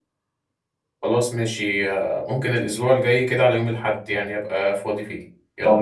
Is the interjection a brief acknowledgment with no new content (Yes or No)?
No